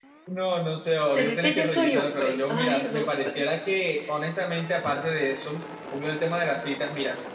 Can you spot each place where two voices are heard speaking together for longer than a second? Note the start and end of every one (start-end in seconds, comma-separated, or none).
1.1-3.3